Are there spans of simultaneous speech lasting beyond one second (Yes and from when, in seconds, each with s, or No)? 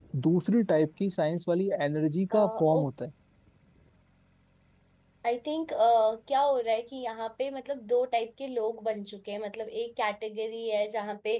No